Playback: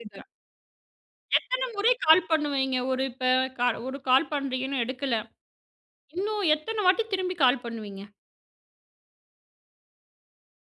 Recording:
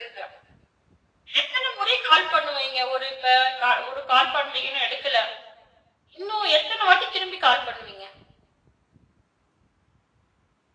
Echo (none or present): present